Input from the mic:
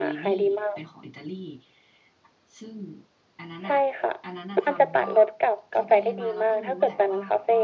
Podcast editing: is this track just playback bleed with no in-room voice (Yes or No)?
No